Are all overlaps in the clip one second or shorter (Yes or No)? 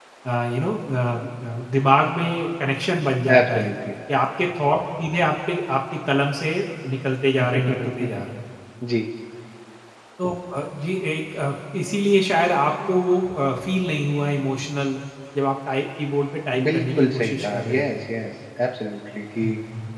No